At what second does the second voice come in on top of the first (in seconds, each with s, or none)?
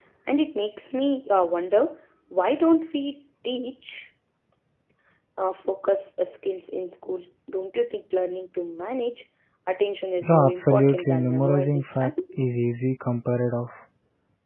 10.2 s